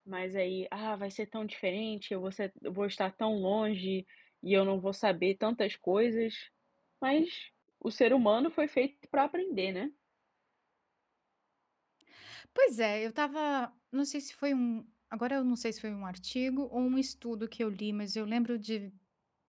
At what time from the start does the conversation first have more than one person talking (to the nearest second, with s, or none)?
none